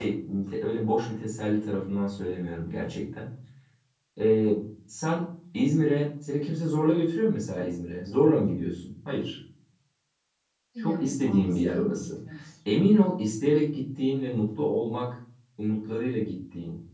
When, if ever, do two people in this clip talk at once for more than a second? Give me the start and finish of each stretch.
10.8-12.1

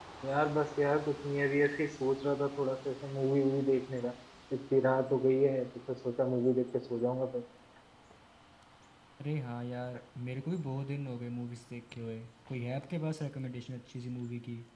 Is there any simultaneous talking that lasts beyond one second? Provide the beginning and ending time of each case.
none

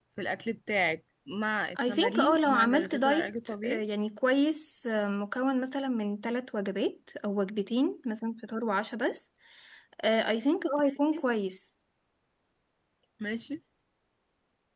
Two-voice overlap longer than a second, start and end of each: 1.8-3.9

